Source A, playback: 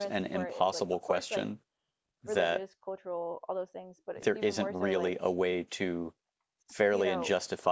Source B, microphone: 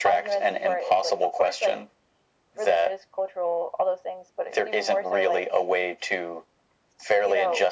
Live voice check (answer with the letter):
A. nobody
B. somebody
A